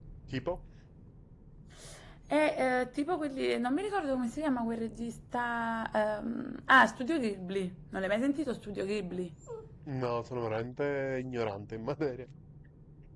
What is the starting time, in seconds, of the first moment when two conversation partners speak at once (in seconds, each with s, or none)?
none